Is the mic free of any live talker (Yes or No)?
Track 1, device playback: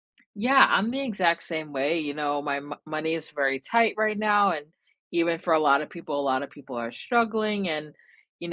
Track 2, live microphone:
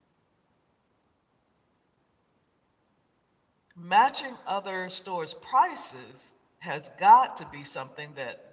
No